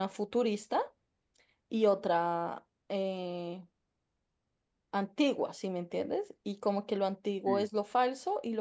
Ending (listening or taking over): listening